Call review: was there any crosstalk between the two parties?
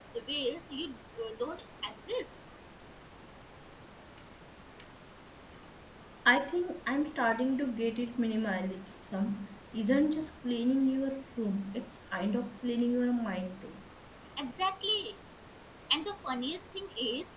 No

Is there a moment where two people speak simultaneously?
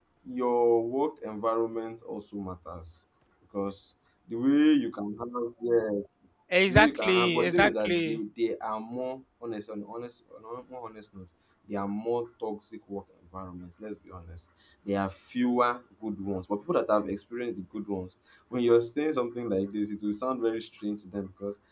Yes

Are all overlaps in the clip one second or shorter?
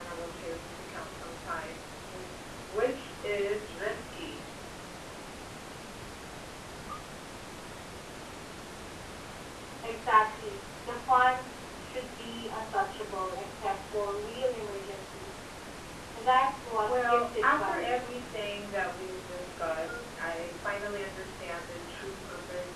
No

